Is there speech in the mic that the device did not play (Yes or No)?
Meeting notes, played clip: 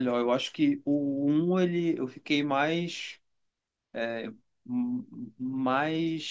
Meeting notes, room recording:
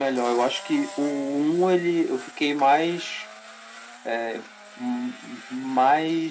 No